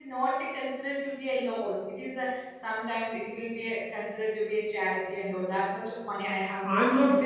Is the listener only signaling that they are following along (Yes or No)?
No